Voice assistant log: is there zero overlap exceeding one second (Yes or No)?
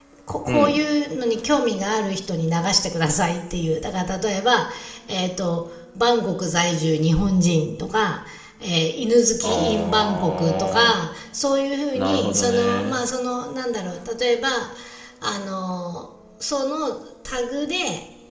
No